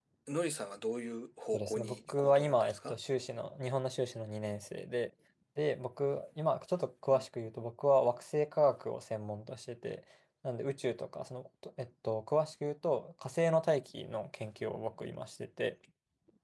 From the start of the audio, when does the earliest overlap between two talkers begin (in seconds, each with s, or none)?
1.5 s